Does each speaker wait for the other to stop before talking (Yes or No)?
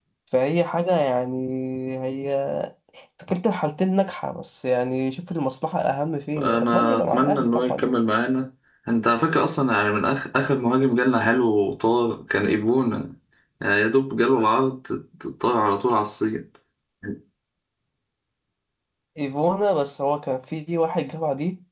No